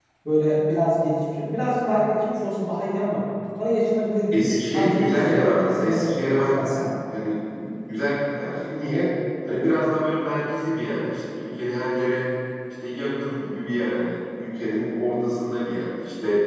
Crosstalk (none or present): present